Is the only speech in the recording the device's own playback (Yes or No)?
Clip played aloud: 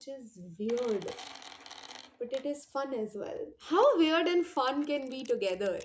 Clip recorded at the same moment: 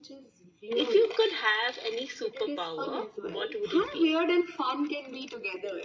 No